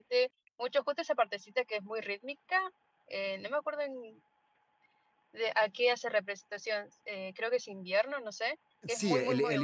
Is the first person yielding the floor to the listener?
Yes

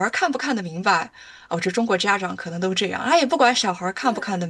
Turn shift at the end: No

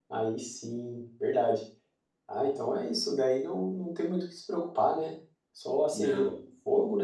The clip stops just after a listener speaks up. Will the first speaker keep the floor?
Yes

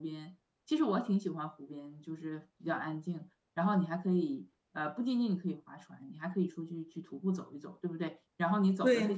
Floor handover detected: No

